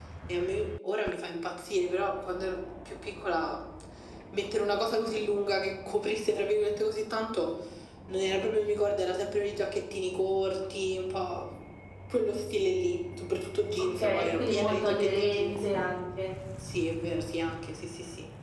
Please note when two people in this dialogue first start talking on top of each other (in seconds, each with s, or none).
14.0 s